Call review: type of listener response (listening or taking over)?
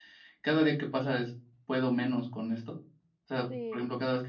listening